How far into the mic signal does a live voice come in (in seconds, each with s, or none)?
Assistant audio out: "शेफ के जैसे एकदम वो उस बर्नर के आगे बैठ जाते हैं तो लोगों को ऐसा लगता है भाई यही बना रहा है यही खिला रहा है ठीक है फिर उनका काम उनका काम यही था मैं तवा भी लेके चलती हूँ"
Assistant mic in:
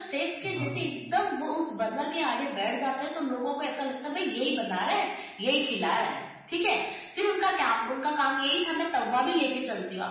0.4 s